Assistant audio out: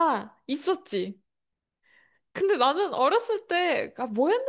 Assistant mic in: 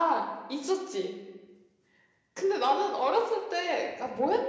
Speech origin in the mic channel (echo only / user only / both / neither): echo only